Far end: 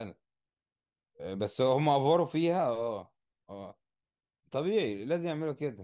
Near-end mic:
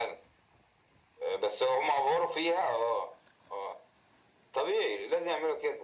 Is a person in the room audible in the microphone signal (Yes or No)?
No